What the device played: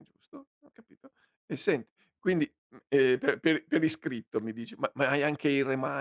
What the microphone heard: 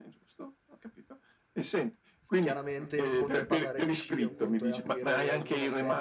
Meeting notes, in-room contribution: present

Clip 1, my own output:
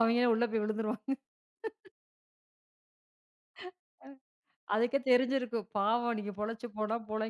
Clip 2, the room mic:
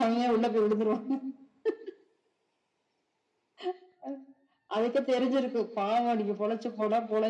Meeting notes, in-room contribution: none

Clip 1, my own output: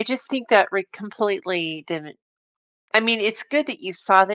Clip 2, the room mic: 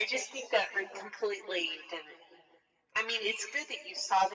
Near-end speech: none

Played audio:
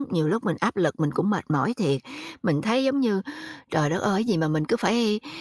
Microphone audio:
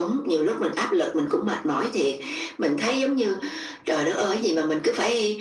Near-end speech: none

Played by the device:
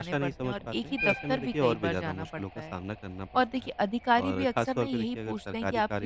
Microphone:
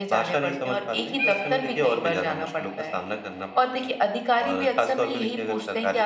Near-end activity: none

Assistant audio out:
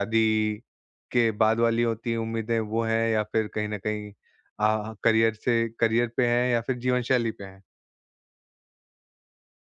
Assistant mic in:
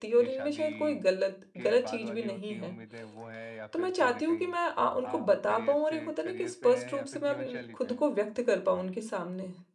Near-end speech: present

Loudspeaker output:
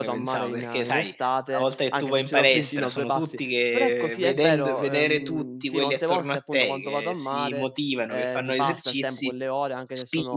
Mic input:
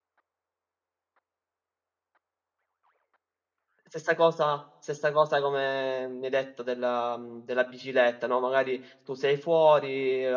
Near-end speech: present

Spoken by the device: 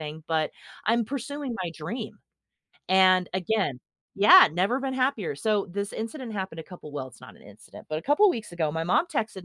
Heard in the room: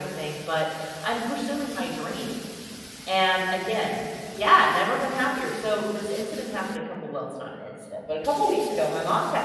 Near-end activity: none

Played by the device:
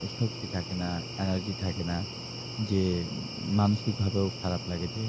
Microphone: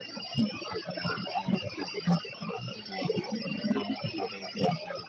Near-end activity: none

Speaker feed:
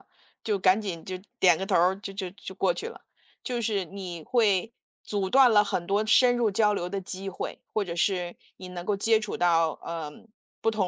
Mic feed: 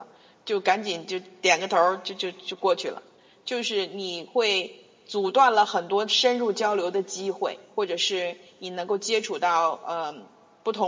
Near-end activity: none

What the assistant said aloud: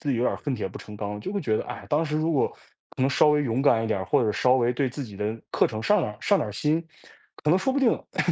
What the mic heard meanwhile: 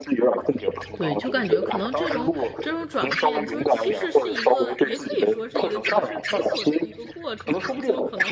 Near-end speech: present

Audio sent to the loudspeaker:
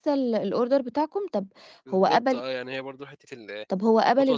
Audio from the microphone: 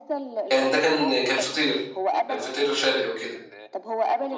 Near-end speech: present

